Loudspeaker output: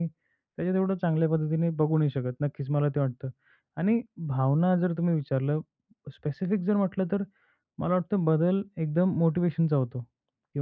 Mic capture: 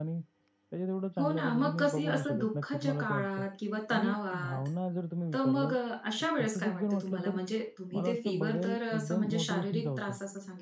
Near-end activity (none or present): present